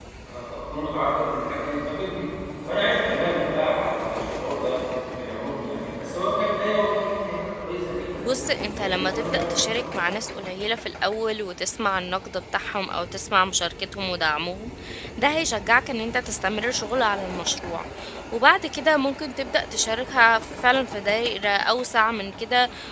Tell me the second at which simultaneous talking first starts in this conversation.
8 s

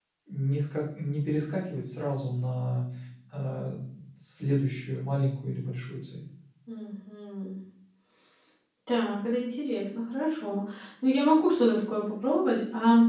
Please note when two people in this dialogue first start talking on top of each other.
none

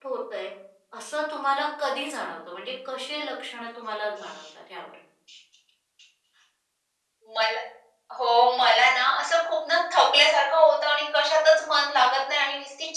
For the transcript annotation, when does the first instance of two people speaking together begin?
none

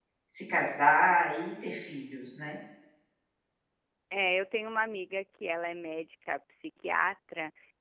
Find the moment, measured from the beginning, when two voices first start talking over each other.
none

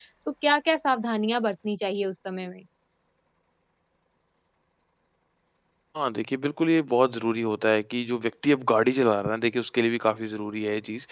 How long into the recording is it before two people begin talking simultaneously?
none

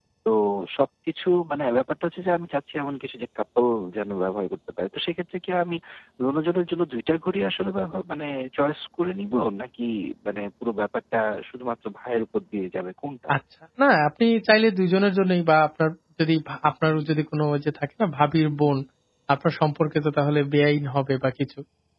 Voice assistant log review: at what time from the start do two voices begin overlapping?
none

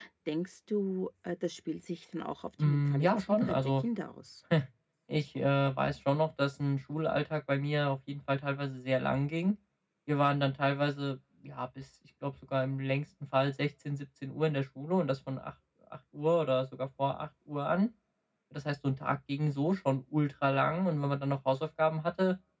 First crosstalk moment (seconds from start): 3 s

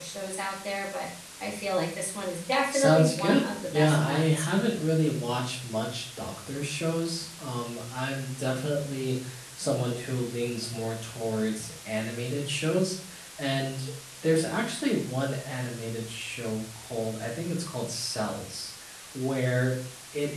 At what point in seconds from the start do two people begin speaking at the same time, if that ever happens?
3 s

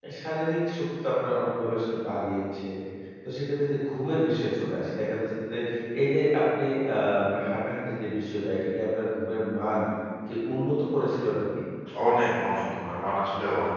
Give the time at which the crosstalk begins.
none

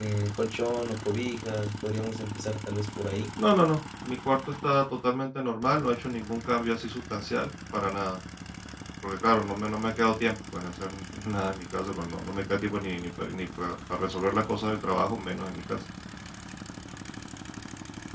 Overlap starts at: none

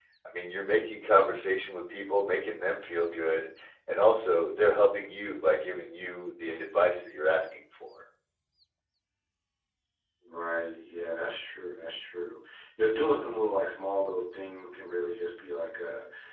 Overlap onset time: none

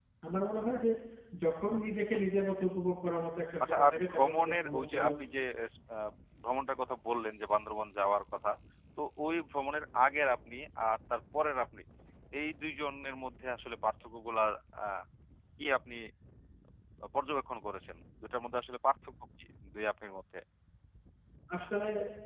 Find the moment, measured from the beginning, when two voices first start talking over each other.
4 s

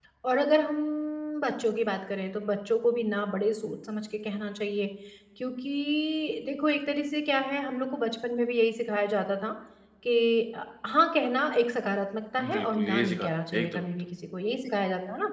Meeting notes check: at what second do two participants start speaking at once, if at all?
12 s

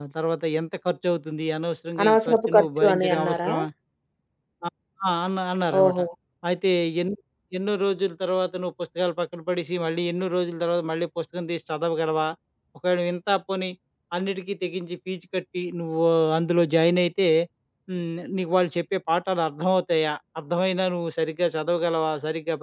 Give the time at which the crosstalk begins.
2 s

